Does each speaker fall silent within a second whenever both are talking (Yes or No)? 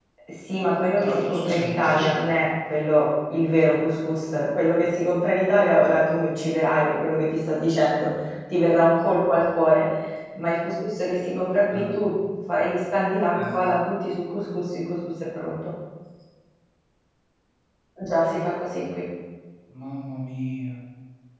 No